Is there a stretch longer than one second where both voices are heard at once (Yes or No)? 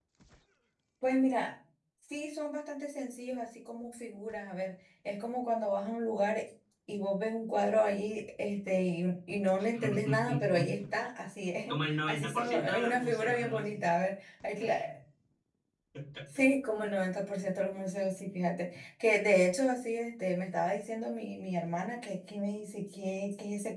Yes